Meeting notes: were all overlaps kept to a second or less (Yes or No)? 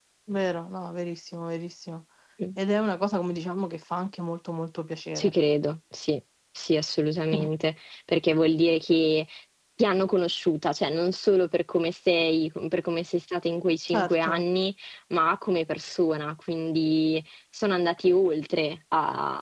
Yes